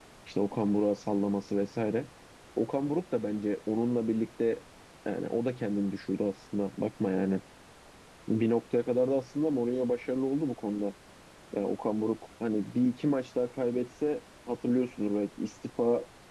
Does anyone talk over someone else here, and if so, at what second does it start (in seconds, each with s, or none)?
none